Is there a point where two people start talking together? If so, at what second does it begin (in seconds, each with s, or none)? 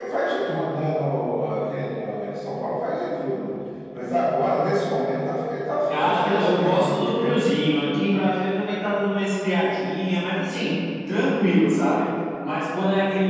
5.9 s